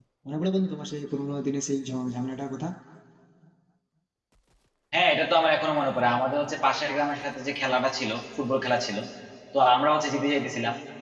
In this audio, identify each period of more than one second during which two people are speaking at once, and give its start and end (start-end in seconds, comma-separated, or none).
none